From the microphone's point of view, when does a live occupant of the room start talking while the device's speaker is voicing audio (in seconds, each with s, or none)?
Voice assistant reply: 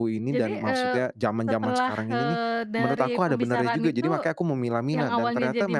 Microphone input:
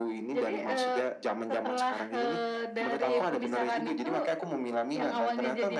3.0 s